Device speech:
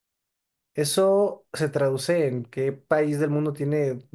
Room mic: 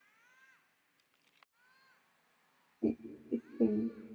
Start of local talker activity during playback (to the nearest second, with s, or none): 3 s